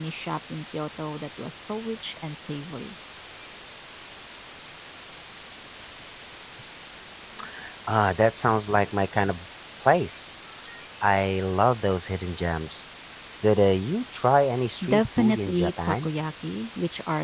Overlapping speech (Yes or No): Yes